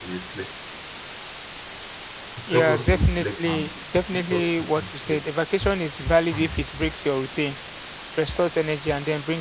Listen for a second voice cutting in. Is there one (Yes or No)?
Yes